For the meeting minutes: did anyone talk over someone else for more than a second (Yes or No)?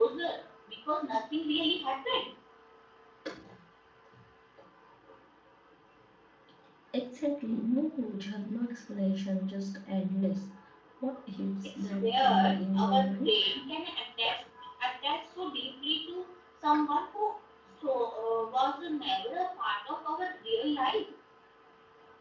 Yes